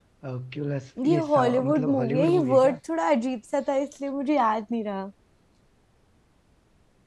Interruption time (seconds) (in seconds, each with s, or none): 1.0 s